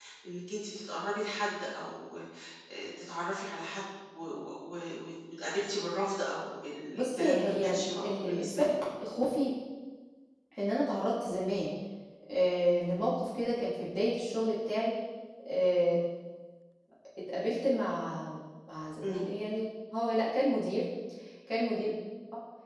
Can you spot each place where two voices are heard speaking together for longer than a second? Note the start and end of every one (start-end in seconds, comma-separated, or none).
6.9-8.6